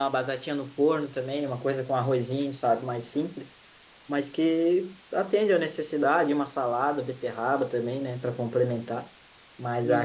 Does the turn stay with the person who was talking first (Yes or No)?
No